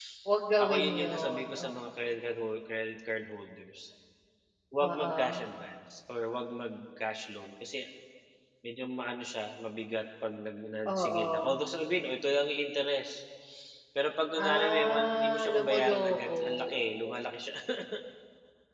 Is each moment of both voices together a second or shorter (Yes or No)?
No